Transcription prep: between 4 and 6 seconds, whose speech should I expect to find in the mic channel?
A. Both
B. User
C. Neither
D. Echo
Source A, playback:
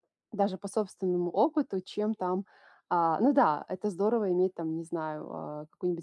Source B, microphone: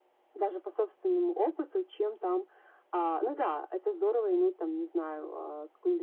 D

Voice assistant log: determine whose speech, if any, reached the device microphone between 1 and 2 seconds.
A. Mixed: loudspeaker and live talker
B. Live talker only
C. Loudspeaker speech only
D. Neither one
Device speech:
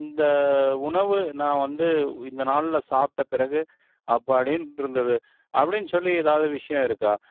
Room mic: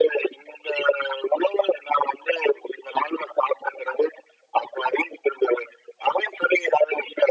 C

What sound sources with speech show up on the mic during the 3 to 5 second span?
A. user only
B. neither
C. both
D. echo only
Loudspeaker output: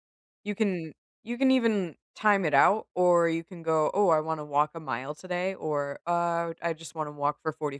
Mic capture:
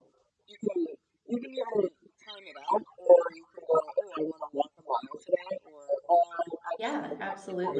D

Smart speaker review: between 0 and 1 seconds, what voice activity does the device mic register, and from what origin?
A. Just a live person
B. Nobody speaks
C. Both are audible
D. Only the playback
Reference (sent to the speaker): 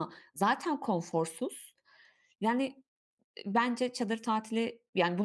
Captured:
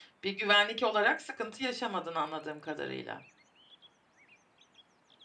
A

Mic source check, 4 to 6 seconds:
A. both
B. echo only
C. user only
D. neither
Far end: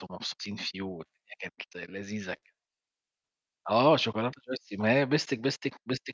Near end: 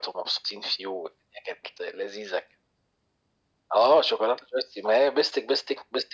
B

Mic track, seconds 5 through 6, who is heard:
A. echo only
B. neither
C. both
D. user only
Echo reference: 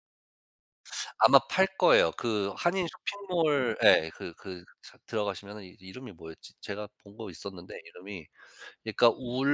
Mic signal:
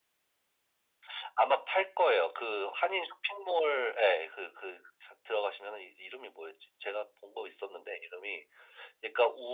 A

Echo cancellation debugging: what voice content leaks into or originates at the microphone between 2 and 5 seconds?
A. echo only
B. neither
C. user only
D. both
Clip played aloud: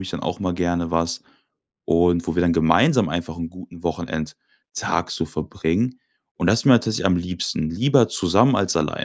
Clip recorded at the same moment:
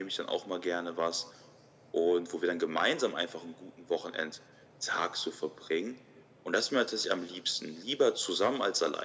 A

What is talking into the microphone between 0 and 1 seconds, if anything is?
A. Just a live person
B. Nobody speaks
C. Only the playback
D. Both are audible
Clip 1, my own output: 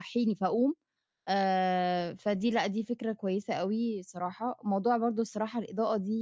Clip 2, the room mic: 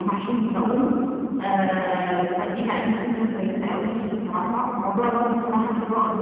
C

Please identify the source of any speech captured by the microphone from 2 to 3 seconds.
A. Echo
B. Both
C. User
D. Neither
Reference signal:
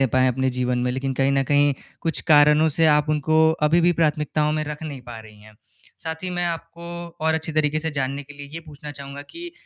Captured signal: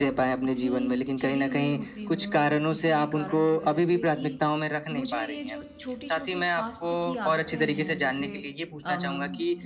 B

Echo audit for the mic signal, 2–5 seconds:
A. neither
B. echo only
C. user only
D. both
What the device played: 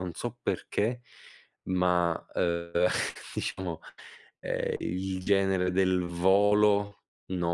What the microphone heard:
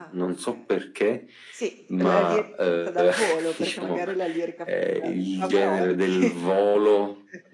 D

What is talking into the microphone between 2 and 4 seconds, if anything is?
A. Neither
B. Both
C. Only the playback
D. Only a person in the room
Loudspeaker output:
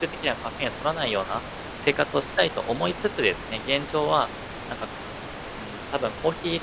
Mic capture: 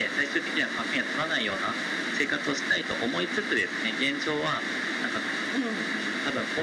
C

